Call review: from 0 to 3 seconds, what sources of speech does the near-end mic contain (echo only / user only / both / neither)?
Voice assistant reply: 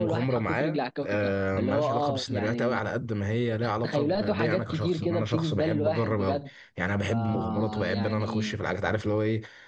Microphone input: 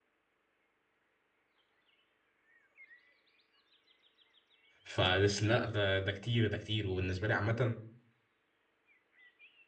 neither